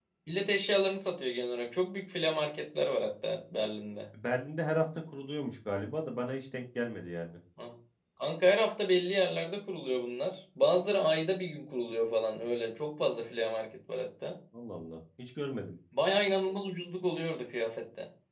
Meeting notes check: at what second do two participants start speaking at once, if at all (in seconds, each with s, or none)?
none